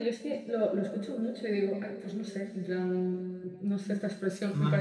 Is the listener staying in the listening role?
No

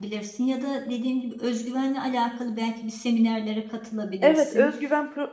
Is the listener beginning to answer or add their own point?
Yes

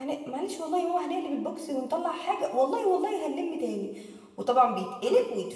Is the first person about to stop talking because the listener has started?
No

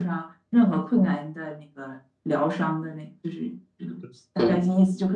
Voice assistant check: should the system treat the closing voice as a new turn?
No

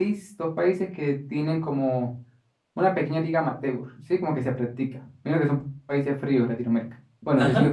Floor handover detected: No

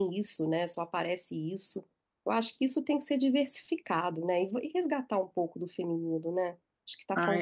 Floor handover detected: Yes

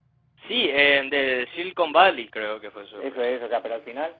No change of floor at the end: No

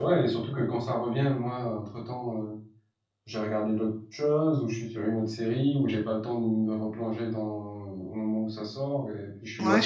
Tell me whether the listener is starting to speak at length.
Yes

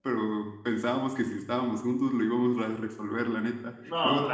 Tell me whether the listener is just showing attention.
Yes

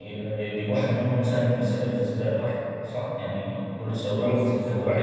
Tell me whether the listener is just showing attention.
No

